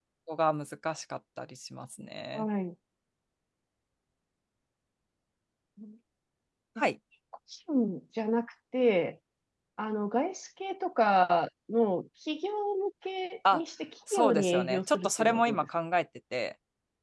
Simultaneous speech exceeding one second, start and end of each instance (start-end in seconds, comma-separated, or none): 14.1-15.7